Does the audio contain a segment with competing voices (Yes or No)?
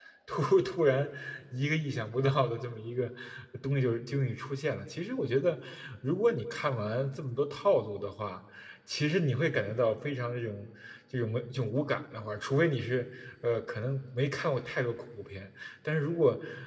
No